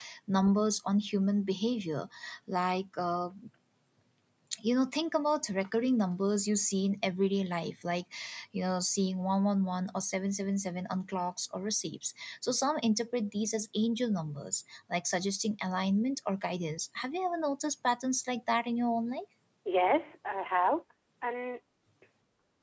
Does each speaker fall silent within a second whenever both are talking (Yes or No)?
Yes